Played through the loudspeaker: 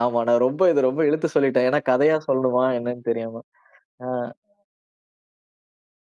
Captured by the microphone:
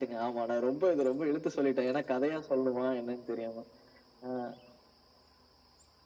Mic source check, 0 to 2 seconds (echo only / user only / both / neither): echo only